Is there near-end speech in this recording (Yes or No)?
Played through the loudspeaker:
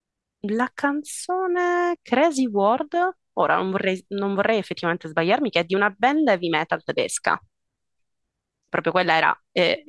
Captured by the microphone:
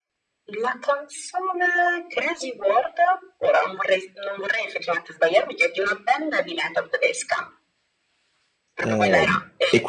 Yes